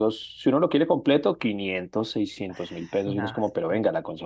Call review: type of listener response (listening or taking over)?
listening